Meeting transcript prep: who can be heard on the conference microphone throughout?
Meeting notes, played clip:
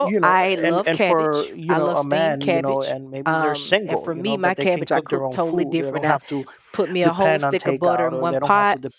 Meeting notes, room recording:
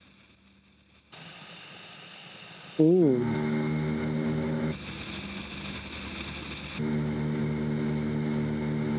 user only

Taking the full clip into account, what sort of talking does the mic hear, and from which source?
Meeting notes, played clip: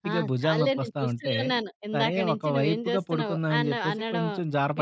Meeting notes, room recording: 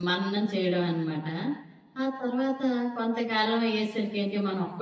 user only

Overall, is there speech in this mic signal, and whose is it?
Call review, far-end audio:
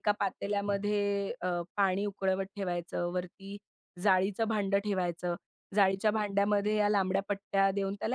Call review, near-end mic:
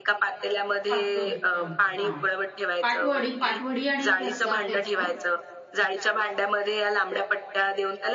both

